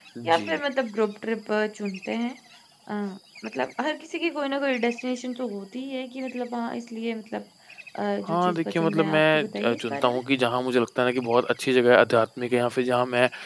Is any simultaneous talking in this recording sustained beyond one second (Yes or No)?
Yes